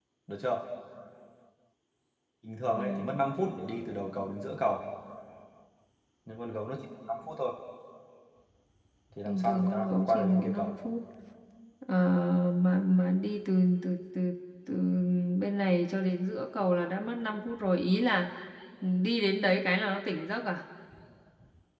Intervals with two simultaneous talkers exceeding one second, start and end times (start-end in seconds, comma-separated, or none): 9.2-10.7